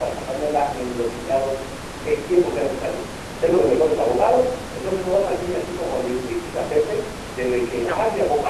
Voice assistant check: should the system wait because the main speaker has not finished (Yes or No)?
Yes